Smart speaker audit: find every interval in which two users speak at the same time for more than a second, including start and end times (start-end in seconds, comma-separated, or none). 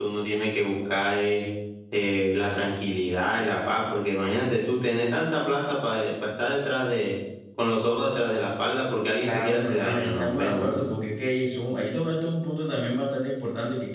9.2-10.8